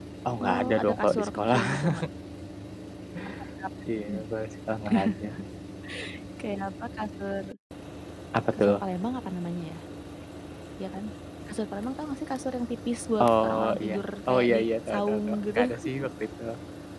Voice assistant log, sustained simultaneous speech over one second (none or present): present